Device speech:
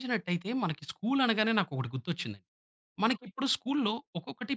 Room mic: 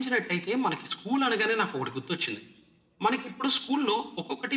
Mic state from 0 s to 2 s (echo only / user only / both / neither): echo only